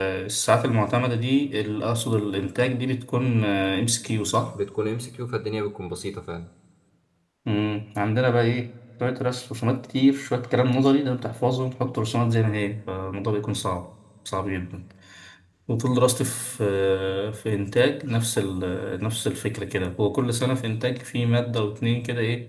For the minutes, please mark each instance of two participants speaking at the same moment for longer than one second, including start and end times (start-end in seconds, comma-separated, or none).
none